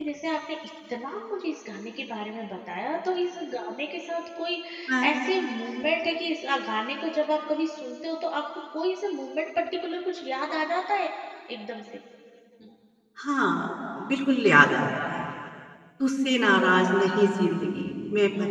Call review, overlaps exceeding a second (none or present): none